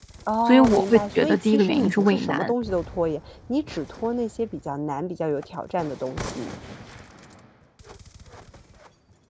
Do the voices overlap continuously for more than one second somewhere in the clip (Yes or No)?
Yes